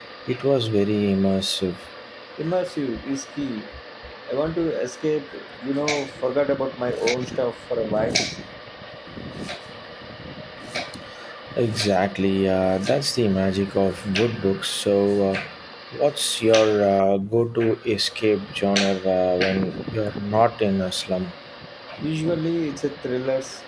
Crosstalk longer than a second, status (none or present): none